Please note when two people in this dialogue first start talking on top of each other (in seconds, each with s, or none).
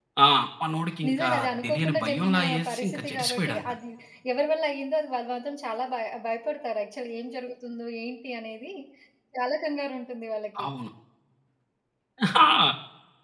1.1 s